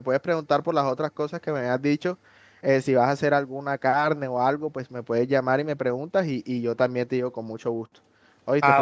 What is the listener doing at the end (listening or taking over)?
taking over